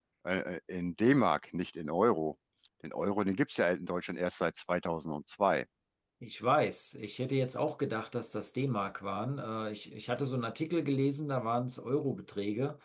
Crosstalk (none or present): none